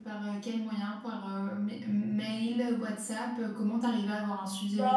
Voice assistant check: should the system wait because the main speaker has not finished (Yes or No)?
No